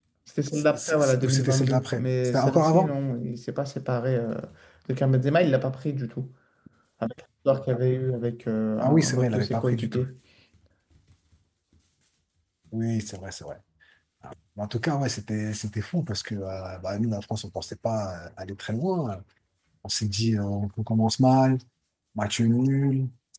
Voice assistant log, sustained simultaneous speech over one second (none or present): present